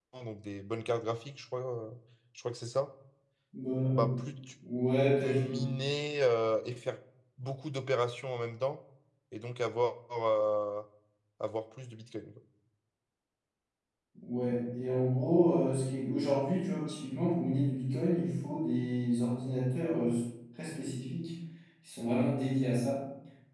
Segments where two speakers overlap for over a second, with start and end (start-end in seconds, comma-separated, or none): none